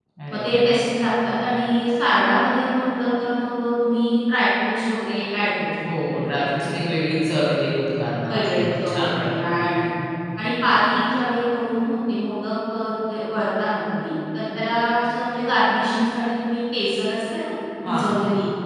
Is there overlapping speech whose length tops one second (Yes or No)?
Yes